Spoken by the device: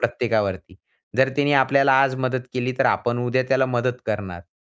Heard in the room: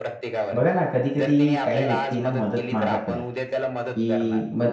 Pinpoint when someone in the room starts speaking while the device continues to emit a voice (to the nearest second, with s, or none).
1 s